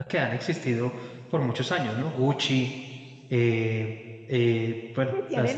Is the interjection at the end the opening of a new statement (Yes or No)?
Yes